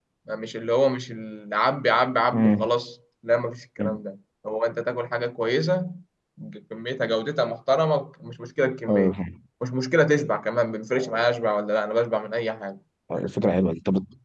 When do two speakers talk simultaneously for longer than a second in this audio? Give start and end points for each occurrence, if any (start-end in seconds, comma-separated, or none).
none